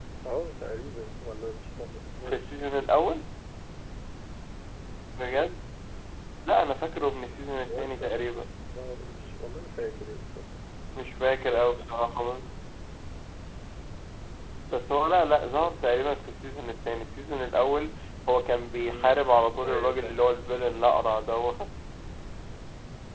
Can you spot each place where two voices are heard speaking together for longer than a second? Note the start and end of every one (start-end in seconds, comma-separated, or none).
none